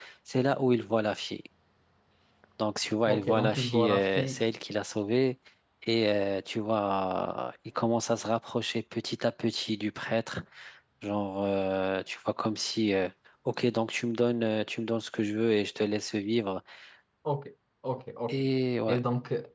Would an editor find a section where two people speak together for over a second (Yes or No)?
Yes